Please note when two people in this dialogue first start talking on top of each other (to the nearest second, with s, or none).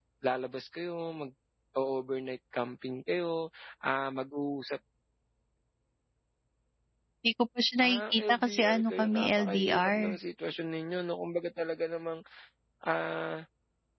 8 s